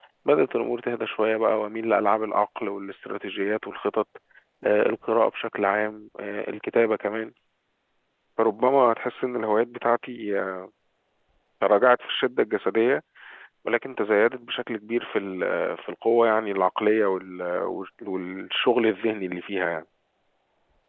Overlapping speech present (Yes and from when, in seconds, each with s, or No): No